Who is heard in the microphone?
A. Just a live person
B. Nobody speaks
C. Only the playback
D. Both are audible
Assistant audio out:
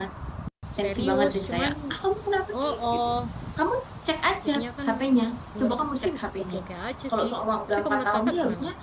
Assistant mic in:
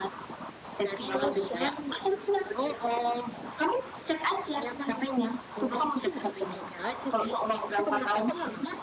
C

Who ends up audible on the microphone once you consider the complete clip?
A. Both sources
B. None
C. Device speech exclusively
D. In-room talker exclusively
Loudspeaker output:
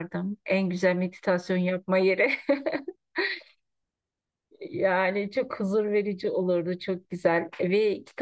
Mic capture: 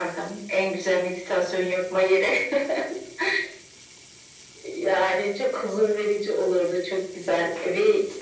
C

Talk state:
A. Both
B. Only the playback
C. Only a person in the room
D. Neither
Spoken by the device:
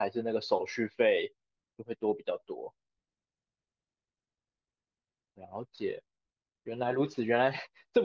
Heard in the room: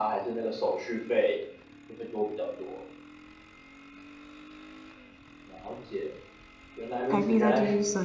A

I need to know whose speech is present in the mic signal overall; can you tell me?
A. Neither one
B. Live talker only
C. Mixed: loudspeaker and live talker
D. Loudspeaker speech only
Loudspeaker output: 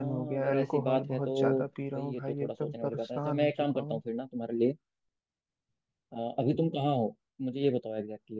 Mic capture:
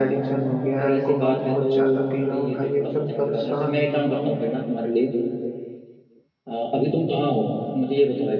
D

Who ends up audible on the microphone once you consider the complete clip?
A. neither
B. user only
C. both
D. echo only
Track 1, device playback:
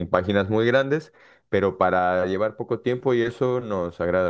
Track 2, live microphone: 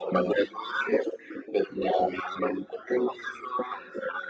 D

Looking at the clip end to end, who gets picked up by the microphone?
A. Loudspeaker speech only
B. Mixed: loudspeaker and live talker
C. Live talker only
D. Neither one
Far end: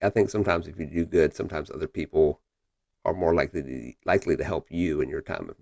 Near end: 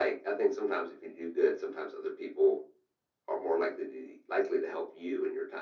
A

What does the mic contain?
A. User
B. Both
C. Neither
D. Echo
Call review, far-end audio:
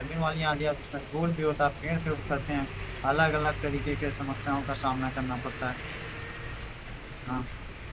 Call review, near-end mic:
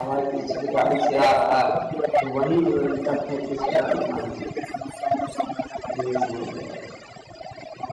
B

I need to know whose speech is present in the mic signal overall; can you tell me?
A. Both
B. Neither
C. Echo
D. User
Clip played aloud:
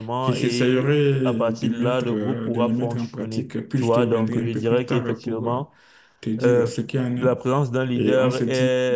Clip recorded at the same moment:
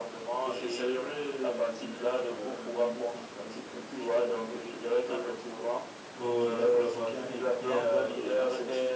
A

